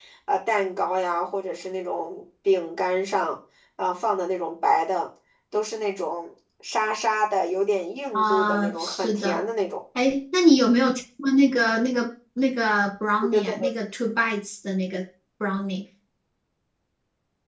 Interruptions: present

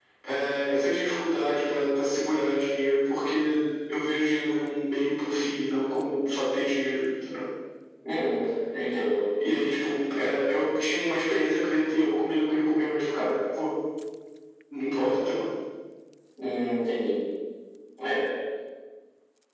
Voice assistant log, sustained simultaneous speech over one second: none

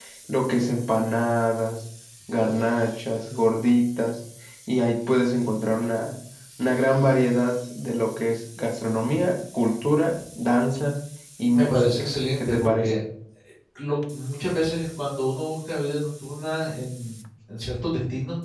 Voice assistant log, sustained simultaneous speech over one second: present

